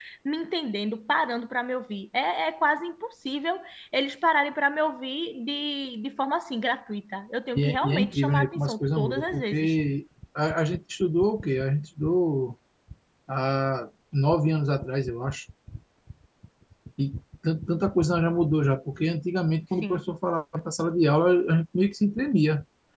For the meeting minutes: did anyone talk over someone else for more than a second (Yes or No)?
Yes